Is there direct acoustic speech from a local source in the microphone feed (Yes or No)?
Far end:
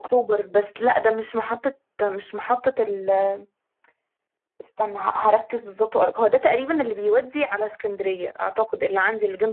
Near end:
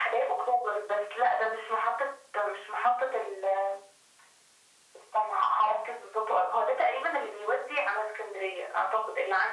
No